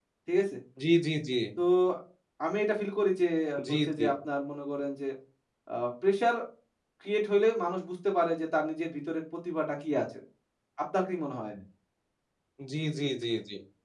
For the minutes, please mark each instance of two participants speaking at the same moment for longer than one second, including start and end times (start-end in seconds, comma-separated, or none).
none